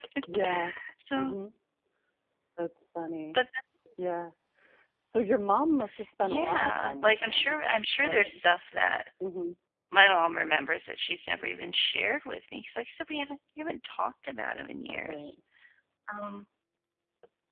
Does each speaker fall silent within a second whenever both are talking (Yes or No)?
No